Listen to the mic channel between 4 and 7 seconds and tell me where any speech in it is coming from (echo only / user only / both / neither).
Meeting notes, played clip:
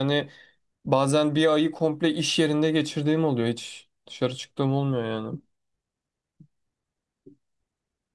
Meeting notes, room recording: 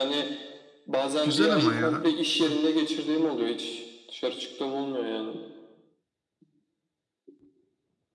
echo only